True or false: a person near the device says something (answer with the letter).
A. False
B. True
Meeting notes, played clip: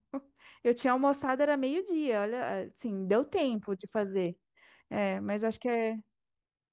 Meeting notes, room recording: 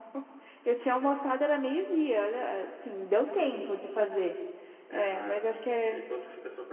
B